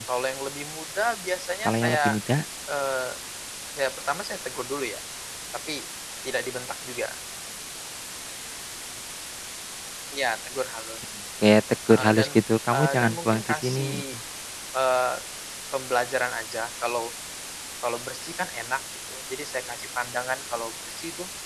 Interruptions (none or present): present